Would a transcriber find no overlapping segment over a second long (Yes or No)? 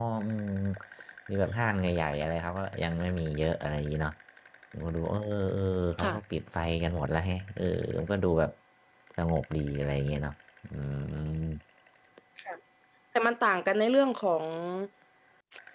Yes